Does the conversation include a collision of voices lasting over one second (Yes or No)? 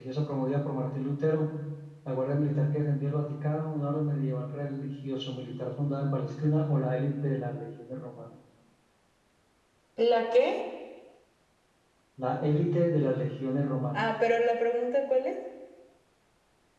No